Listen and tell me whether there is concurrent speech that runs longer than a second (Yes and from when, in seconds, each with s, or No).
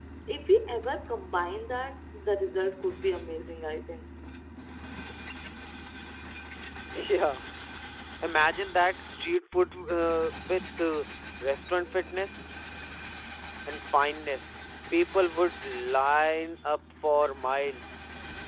No